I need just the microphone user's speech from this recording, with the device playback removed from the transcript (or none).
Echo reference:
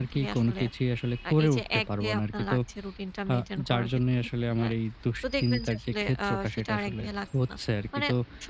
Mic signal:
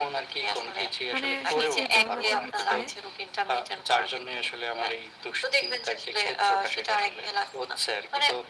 মানে সবচেয়ে বড় ব্যাপার হচ্ছে